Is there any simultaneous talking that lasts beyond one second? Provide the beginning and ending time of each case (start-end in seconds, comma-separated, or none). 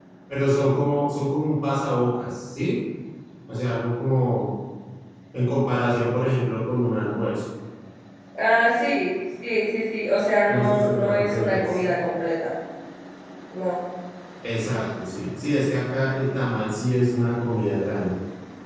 10.6-11.9